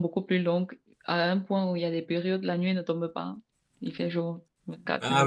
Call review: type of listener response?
taking over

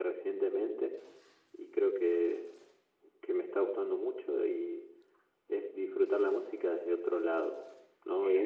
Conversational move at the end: taking over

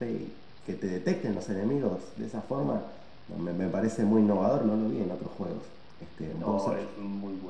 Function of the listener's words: taking over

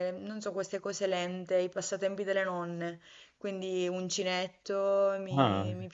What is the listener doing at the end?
listening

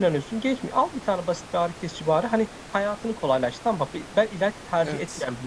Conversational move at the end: listening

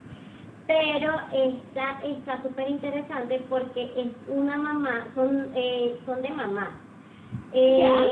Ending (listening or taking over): listening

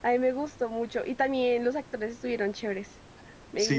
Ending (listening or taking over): taking over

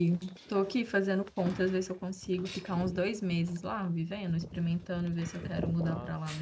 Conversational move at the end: taking over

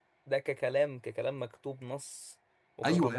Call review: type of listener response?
taking over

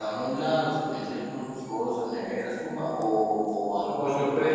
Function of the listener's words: taking over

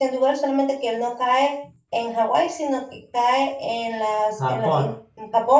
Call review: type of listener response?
listening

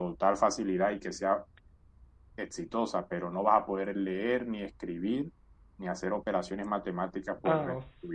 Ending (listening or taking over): taking over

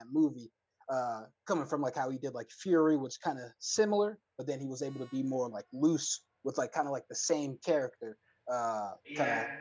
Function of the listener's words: listening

